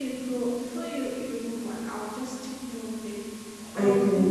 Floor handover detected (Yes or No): No